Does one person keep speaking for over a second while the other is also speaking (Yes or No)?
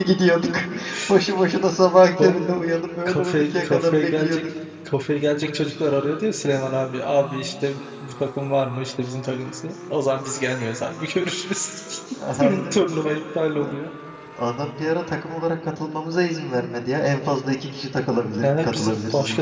Yes